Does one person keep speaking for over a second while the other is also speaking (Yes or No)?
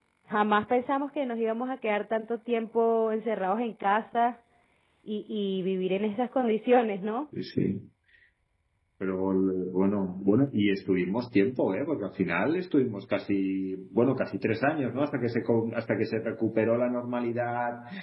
No